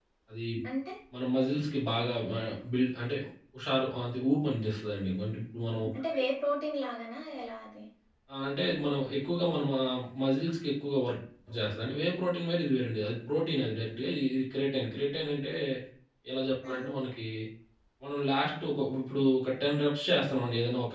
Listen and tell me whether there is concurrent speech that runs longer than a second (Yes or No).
No